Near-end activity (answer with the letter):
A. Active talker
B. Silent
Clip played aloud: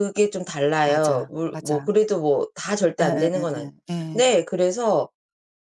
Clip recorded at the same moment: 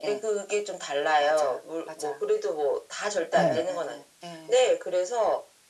A